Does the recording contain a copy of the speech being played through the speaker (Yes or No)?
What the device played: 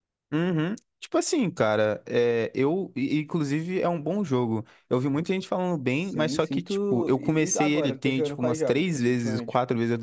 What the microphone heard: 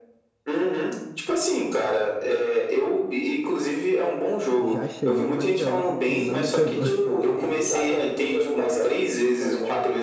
Yes